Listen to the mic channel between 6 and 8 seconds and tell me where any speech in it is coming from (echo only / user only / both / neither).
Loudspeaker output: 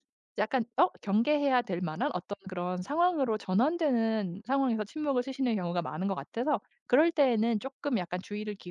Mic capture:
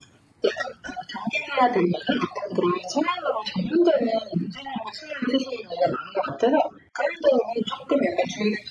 echo only